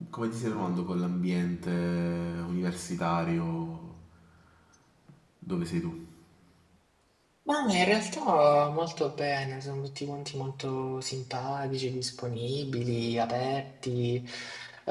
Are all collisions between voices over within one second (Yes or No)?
Yes